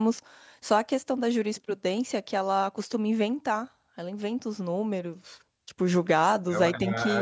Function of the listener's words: taking over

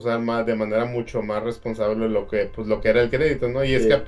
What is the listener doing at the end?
listening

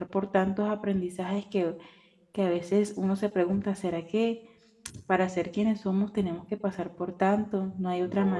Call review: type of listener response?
taking over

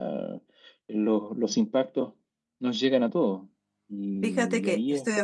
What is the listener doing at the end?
taking over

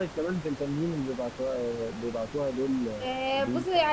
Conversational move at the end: taking over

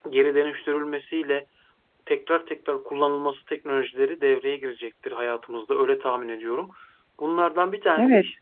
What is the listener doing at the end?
listening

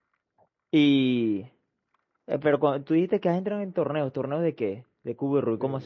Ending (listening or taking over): taking over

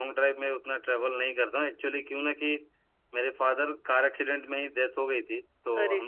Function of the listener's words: listening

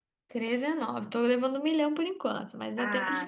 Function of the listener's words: taking over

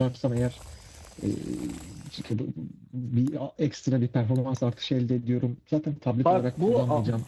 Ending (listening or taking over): taking over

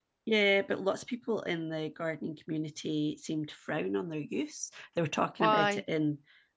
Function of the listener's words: listening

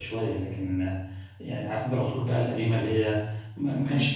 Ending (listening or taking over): listening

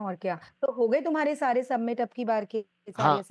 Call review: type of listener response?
taking over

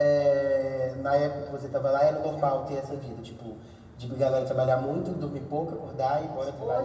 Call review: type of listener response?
taking over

